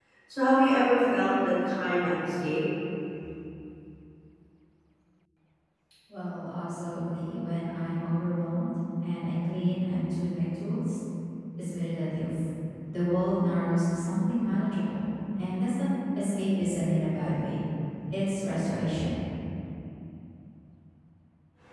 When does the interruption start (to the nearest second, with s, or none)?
none